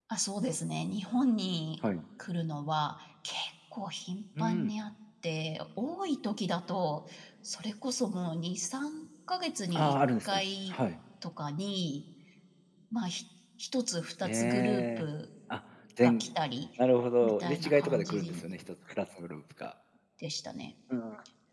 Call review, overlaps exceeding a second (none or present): present